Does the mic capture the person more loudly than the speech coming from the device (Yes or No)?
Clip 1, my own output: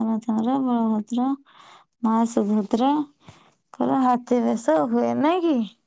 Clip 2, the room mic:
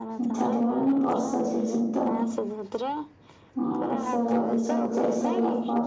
Yes